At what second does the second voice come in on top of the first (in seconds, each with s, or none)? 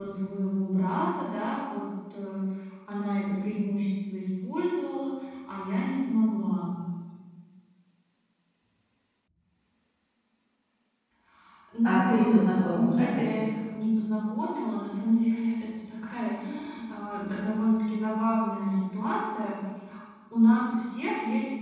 11.8 s